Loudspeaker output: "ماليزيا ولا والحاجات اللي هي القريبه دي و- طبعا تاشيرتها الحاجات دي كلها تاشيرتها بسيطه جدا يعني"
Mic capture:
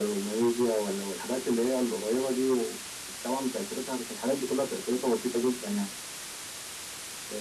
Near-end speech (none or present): none